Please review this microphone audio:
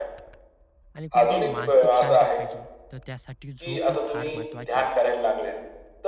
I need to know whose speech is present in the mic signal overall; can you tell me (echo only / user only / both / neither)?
both